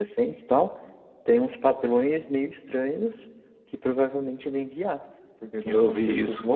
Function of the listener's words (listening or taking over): taking over